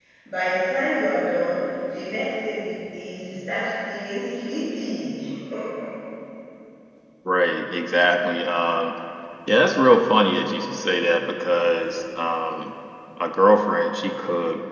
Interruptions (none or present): none